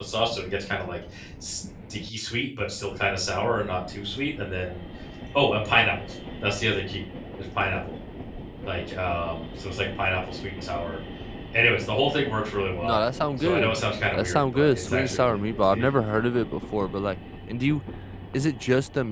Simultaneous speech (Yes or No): Yes